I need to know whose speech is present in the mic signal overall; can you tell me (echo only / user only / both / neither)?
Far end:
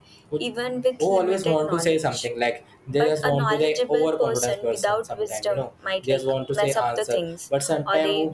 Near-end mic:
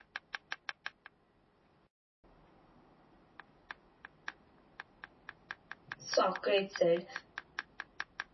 user only